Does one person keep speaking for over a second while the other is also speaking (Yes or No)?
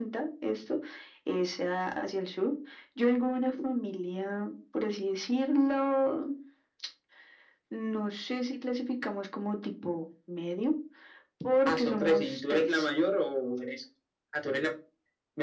Yes